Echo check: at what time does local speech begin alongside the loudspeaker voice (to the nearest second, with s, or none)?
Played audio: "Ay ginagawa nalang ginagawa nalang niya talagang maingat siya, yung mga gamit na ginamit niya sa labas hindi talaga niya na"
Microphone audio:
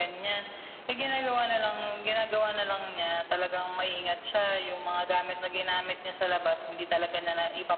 none